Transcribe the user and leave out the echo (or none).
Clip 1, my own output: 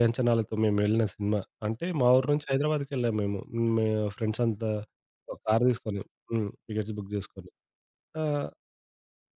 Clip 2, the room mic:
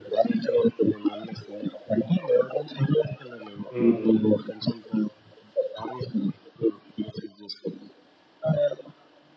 హ్మ్. హ్మ్.